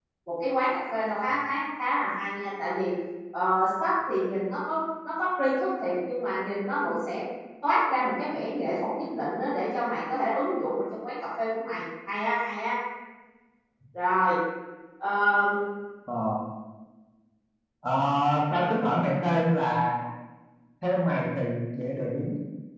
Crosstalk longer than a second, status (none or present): none